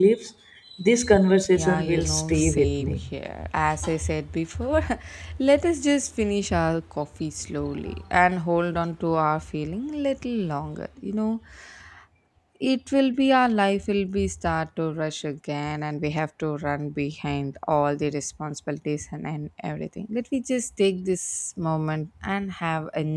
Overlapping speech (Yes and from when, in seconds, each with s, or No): Yes, from 1.5 s